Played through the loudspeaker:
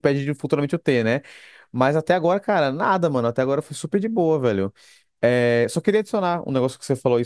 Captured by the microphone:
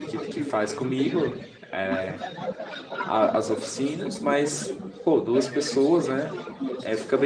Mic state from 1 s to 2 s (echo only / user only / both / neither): both